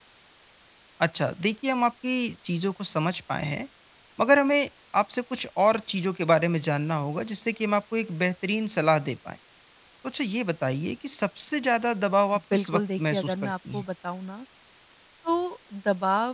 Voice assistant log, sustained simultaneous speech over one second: present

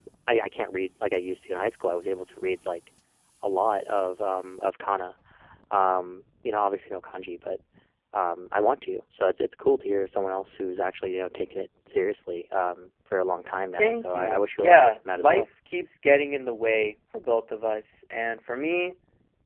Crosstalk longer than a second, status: present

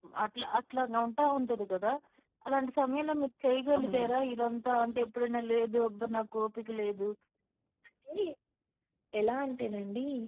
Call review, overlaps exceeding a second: none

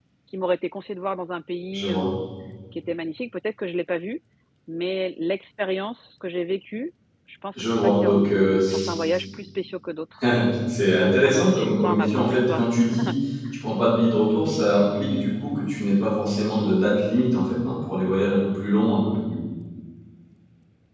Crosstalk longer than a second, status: present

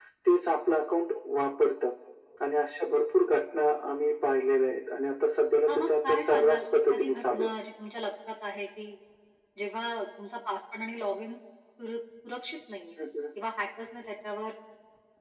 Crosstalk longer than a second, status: present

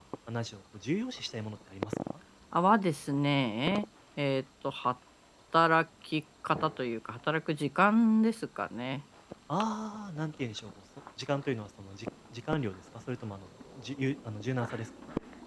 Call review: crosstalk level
none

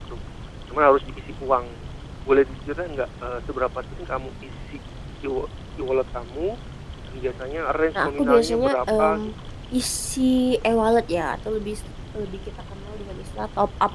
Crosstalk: present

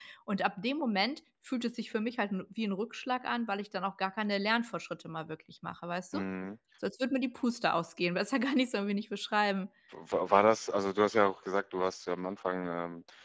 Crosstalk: none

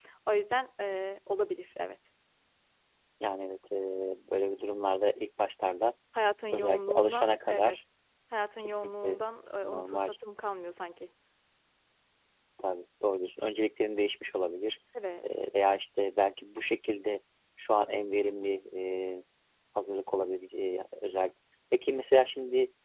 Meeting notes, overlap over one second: present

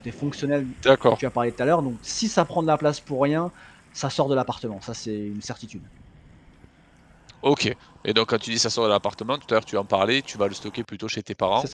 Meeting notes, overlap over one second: none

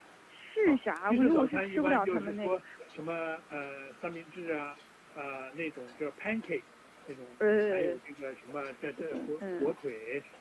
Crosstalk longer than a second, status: present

